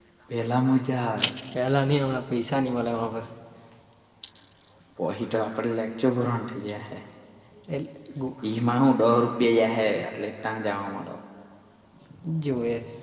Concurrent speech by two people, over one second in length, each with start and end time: none

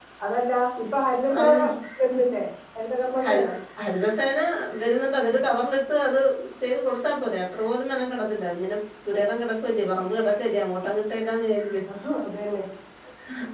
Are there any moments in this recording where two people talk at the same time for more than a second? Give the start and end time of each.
none

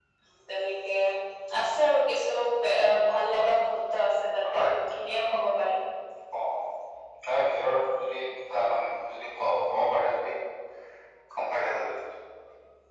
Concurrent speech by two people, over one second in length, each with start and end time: none

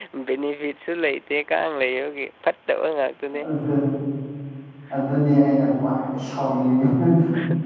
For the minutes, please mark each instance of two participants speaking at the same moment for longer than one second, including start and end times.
none

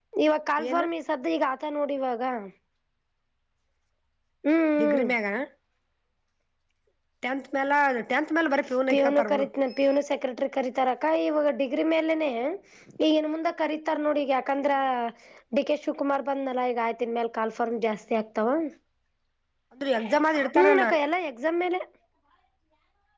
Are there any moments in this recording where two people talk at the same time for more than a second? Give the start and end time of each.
none

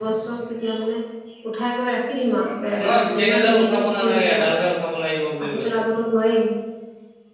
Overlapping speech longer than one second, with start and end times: 2.8-4.5

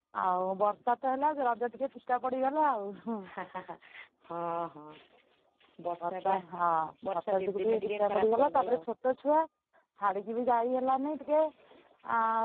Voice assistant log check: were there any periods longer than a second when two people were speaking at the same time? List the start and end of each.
7.4-8.8

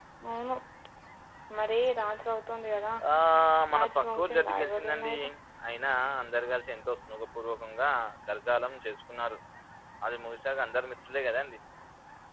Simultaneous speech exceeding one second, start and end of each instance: 3.8-5.1

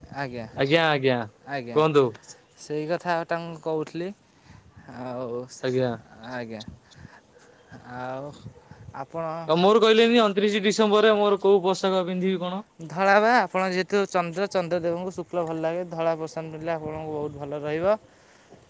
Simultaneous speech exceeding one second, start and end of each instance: none

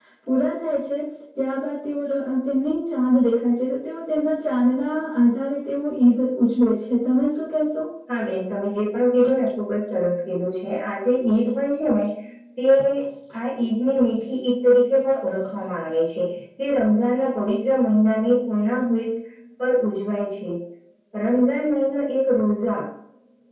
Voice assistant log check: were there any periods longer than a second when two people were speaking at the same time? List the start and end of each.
none

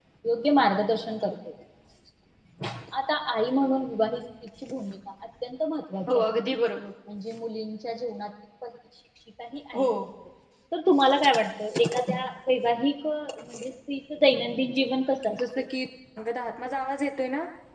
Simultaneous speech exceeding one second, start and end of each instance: none

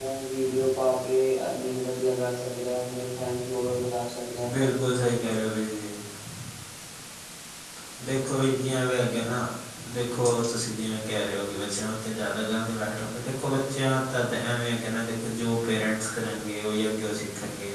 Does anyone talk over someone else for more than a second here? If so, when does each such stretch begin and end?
none

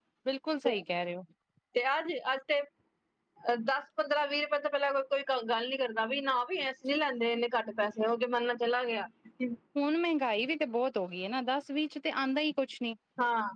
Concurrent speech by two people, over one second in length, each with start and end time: none

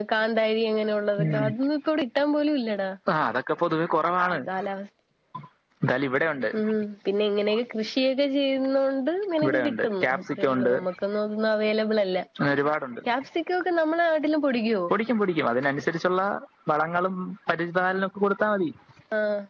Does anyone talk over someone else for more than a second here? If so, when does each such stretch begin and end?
9.4-10.7

